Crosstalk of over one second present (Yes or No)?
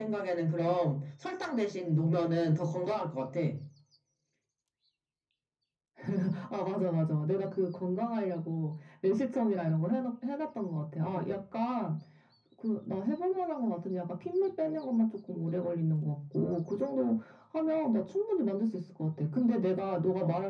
No